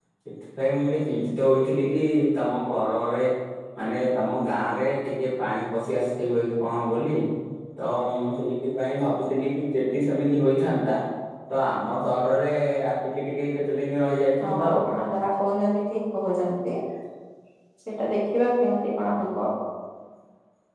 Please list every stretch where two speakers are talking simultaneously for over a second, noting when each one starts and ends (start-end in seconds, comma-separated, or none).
none